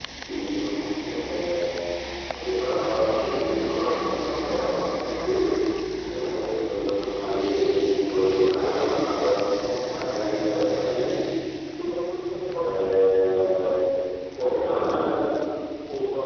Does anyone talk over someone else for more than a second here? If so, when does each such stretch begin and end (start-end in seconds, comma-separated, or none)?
12.4-13.7